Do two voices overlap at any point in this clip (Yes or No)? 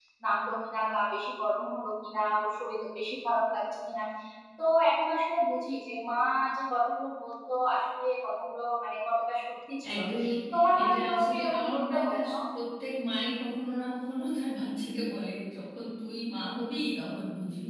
Yes